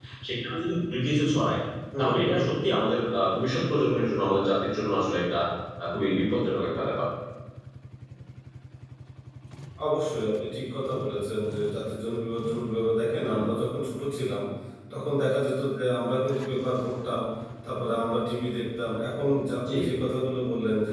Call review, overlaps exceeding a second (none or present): none